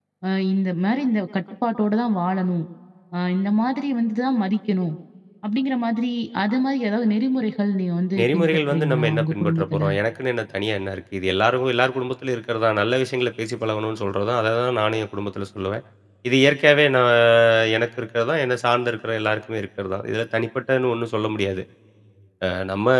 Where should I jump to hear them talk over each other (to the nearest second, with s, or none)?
8 s